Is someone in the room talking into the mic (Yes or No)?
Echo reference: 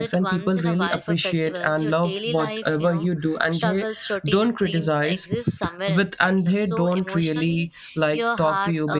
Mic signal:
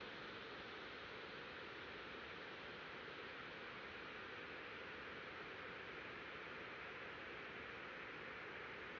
No